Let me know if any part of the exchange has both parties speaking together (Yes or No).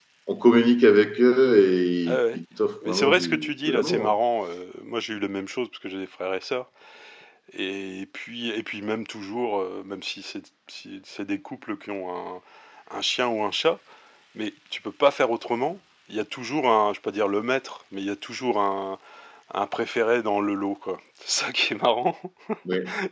Yes